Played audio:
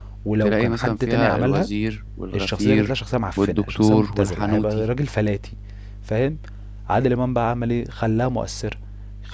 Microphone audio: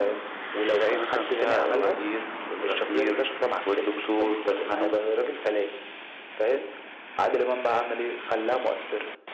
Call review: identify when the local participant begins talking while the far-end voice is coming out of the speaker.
none

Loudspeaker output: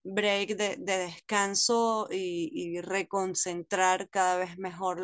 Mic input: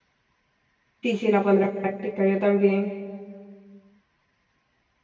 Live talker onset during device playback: 1.0 s

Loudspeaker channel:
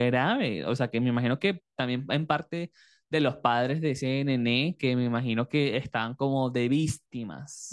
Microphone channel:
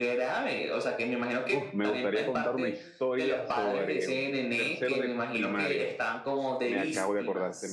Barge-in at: 1.5 s

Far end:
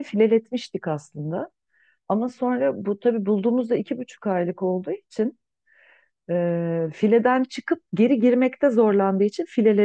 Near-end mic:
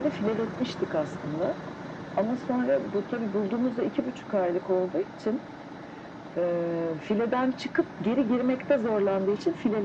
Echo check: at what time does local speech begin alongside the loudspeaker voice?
none

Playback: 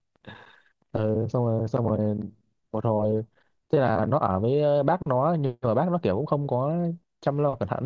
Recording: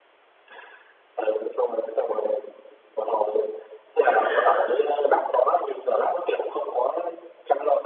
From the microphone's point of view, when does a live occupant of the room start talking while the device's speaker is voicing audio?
4.0 s

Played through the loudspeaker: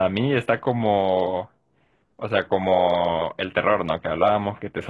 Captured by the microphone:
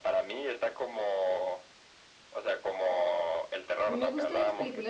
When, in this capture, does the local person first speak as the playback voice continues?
3.8 s

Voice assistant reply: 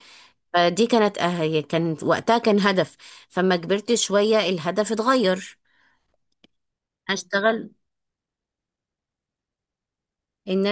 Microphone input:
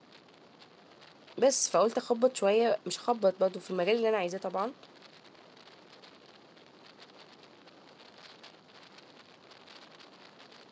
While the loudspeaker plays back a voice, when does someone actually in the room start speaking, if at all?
1.4 s

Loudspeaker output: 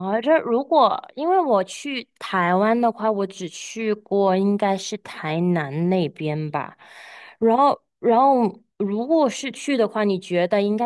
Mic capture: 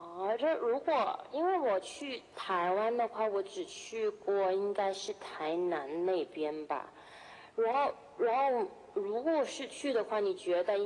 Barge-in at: none

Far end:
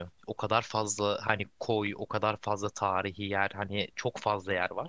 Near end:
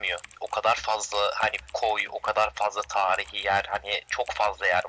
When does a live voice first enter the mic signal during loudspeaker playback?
none

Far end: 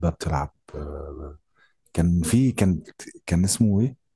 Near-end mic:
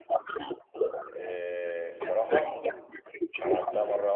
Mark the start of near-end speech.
1.1 s

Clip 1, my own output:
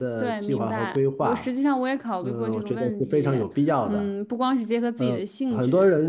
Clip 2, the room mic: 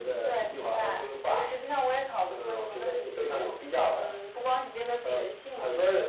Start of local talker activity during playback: none

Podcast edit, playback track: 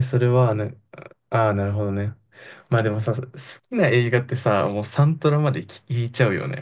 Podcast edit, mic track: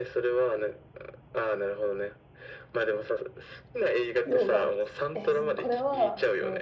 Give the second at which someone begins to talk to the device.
4.2 s

